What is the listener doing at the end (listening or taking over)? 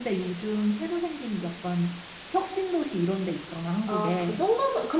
taking over